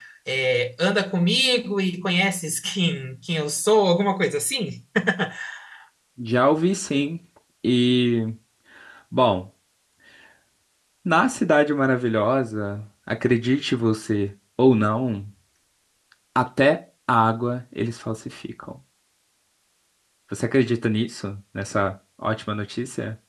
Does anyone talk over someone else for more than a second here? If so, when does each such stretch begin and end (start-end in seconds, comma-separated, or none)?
none